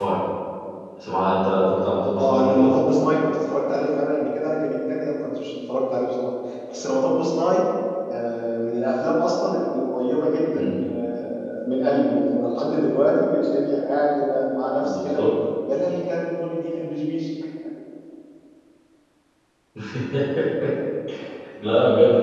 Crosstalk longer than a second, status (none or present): none